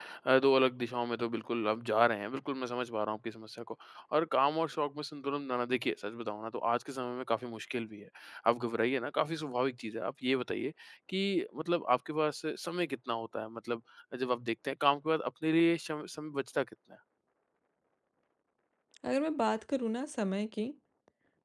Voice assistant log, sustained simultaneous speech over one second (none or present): none